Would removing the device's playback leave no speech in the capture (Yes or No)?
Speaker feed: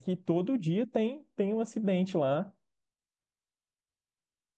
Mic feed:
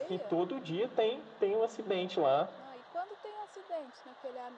No